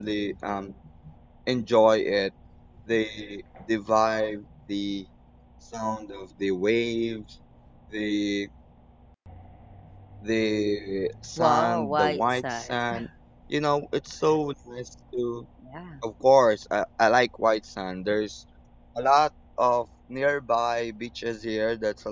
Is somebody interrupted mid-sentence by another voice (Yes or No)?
Yes